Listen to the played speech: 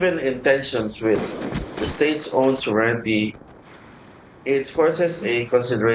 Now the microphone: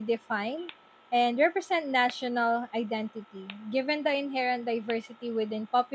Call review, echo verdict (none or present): none